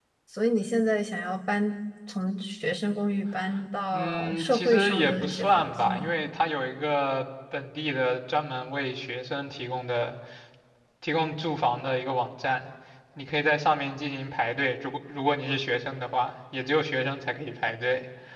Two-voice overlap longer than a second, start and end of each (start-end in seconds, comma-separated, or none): 3.9-6.1